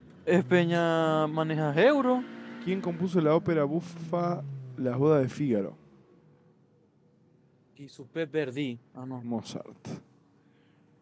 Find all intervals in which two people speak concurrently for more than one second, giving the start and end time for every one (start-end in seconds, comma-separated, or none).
none